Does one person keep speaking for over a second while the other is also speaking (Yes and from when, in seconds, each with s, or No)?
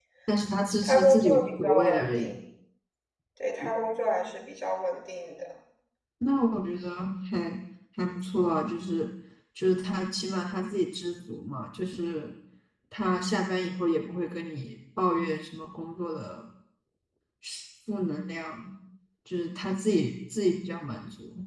Yes, from 0.8 s